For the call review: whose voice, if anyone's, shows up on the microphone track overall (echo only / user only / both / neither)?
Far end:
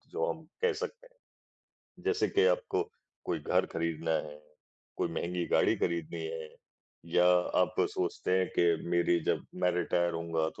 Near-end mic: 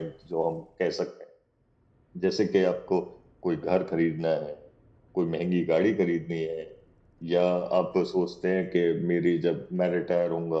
echo only